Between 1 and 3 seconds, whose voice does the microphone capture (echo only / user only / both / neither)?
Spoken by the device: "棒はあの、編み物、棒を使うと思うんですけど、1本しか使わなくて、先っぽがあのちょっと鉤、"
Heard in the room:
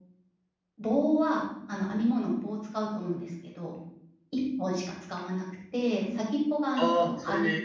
echo only